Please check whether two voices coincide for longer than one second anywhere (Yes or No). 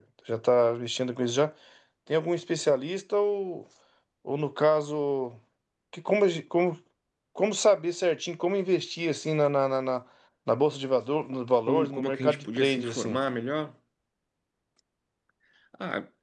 Yes